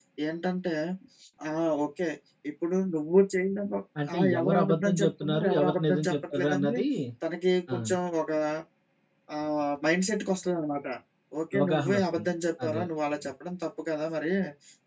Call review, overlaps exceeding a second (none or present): present